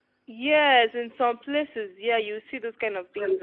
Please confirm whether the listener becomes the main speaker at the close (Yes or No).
No